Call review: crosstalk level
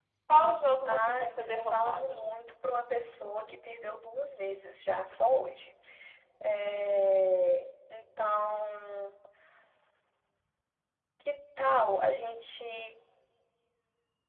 present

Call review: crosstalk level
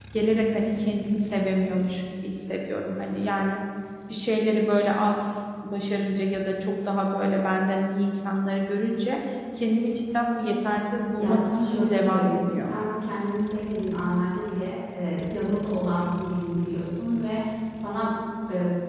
present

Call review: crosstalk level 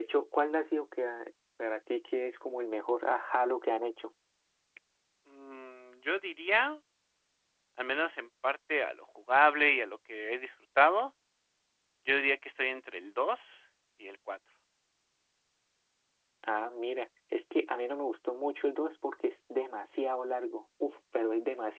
none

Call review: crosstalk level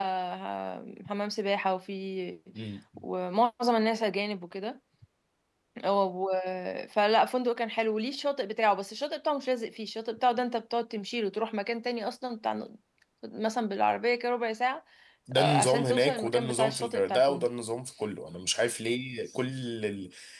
present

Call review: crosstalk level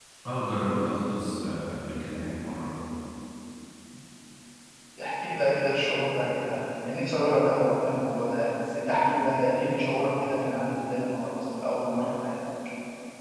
none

